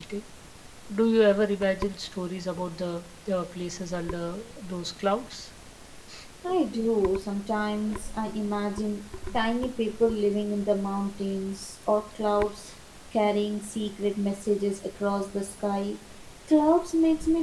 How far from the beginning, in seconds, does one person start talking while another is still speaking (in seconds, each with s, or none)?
none